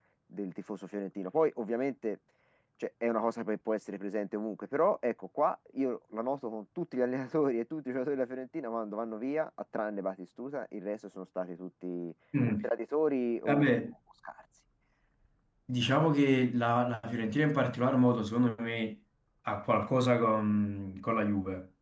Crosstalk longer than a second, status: none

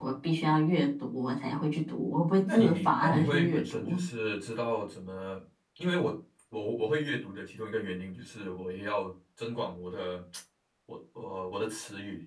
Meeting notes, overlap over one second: present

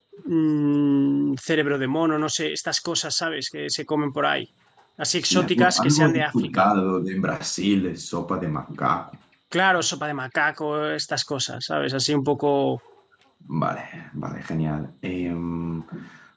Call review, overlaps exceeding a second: present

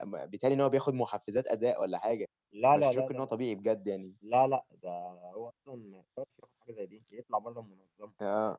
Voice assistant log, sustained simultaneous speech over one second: none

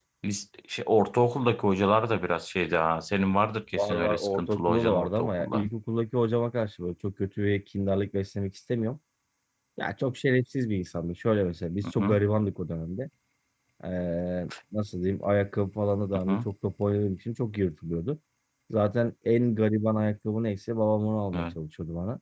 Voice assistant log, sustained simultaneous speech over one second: present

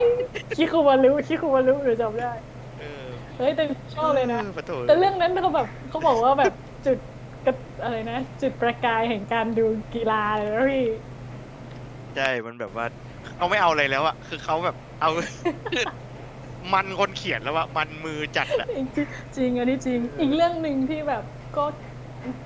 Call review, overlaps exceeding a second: none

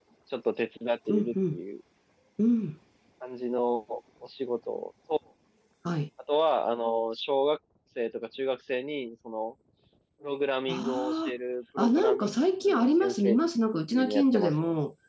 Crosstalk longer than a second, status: present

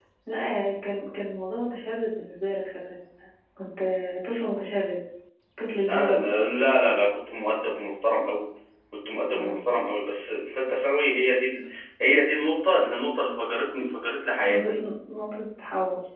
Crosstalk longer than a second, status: none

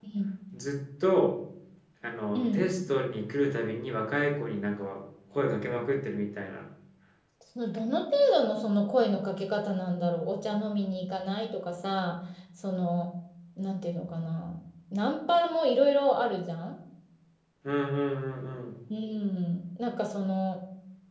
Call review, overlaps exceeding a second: none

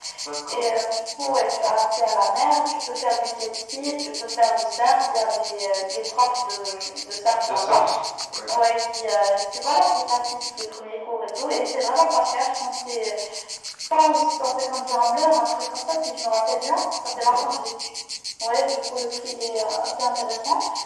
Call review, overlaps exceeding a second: none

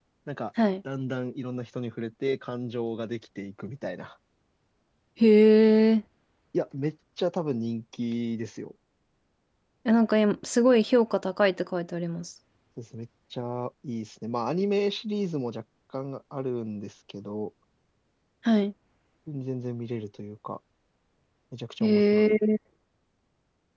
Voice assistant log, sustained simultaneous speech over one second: none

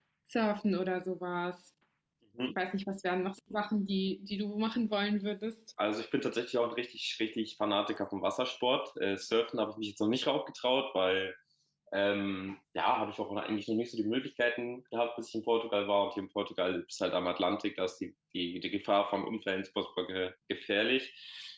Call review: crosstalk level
none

